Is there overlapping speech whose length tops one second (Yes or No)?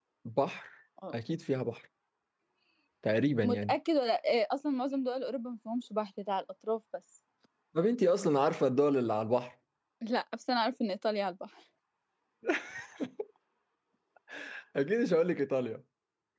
No